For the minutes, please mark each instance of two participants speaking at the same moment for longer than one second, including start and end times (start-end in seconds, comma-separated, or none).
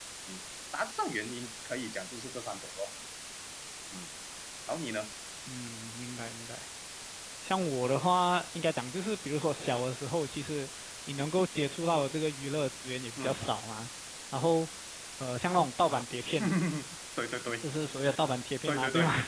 none